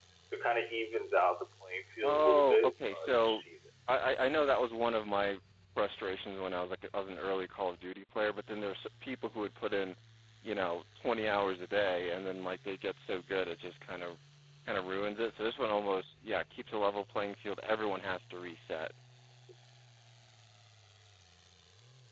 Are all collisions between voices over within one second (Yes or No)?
No